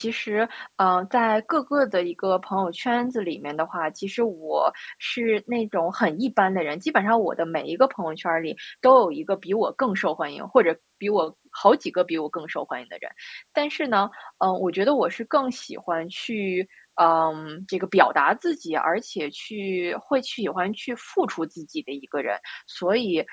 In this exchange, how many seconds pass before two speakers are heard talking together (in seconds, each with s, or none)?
none